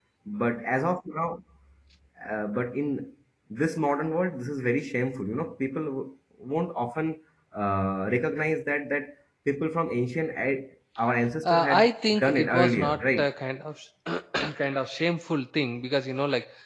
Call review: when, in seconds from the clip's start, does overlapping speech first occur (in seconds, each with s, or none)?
11.4 s